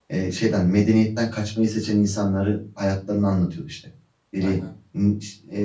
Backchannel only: Yes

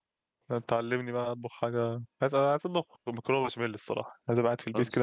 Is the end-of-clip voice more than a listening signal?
No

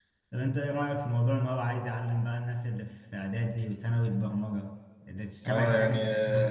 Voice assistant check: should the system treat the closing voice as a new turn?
Yes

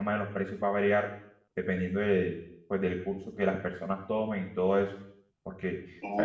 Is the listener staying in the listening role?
Yes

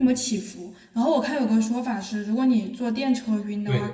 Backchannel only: Yes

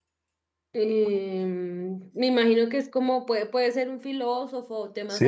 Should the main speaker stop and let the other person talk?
Yes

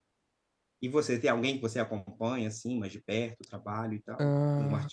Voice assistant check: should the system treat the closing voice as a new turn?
Yes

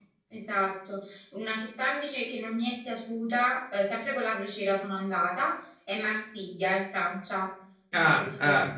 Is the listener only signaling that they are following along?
No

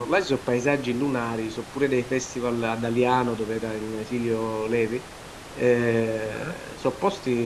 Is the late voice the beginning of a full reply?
No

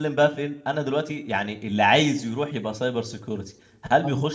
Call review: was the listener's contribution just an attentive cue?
Yes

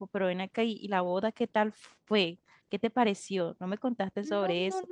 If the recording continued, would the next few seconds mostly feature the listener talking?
Yes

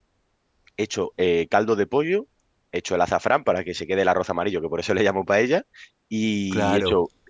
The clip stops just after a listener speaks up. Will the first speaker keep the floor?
Yes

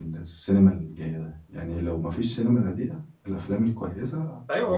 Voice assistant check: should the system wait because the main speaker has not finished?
No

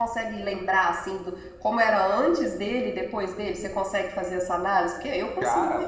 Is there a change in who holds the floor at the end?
Yes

